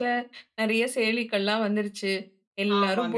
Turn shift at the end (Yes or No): No